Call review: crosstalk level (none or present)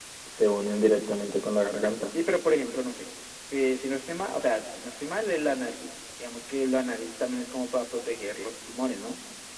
none